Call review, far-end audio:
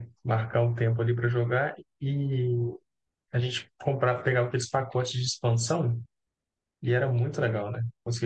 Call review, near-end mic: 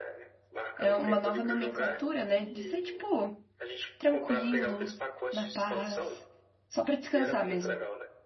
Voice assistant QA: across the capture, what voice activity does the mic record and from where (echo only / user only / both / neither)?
both